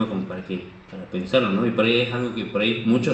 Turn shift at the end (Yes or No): No